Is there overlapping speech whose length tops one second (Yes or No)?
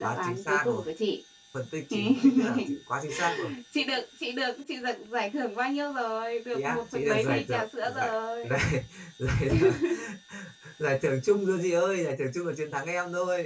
Yes